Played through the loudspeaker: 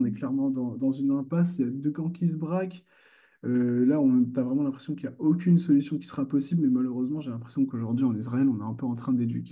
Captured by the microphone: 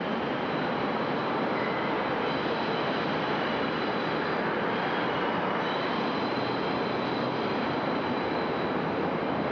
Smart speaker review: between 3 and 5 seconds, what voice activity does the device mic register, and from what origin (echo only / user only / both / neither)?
neither